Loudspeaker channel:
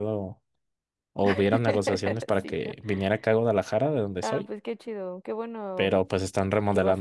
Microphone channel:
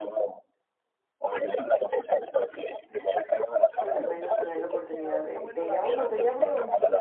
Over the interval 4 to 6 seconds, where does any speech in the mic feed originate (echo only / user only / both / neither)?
both